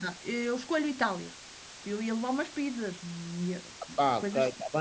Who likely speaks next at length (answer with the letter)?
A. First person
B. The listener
B